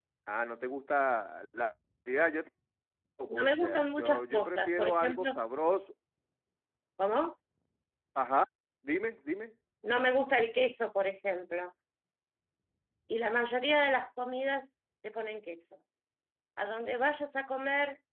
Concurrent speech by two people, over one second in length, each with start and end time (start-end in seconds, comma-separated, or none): 3.3-5.4